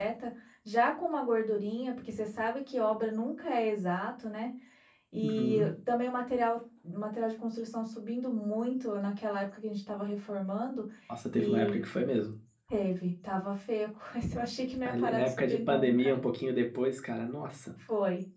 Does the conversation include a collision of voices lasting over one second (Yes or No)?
Yes